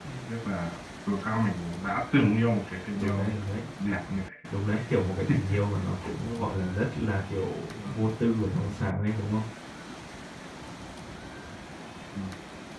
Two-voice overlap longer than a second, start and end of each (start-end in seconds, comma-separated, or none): none